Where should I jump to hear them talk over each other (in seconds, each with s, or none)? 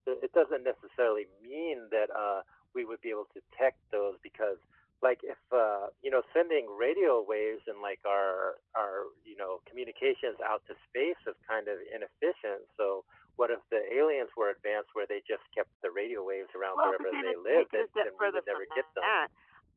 16.8 s